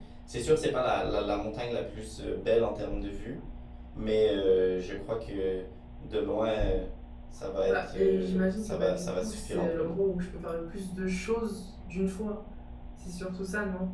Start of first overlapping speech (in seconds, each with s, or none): 7.7 s